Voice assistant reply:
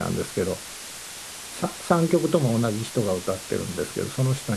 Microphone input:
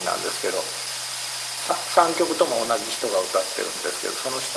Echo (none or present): present